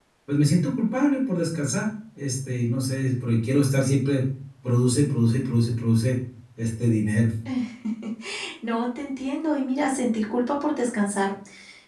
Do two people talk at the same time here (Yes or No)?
No